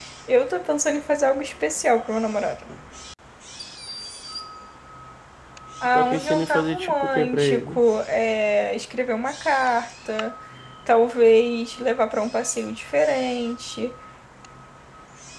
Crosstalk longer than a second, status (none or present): present